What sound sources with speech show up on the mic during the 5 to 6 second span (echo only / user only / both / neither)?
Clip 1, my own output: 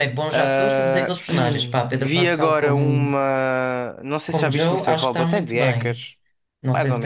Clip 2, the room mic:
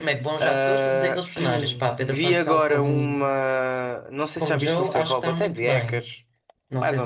echo only